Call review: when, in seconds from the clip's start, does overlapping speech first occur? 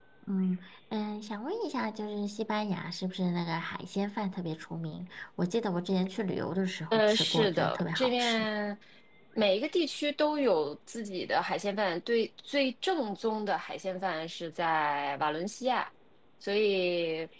6.9 s

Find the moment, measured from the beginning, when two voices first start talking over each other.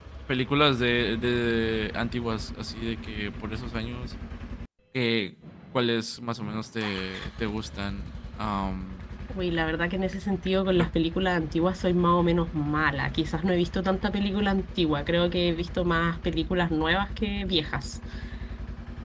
none

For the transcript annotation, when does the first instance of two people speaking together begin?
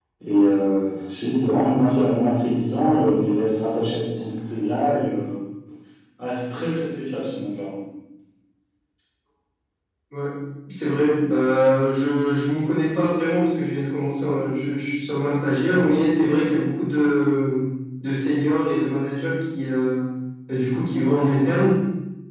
none

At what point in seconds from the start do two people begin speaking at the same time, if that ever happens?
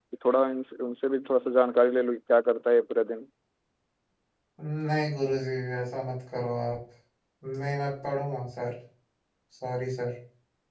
none

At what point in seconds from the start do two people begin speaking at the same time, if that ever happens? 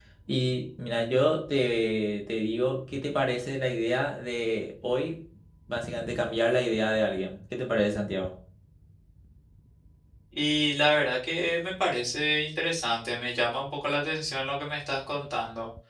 none

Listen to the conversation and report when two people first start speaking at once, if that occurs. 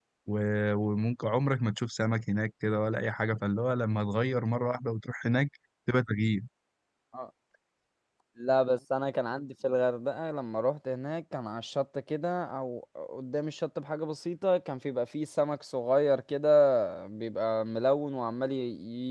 none

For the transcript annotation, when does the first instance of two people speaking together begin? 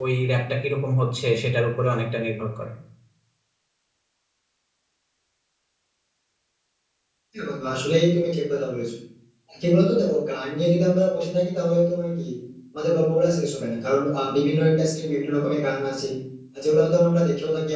none

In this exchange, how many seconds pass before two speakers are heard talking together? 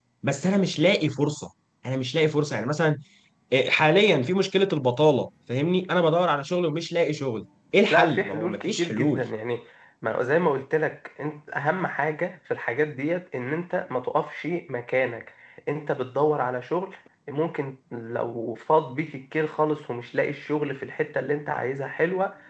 7.9 s

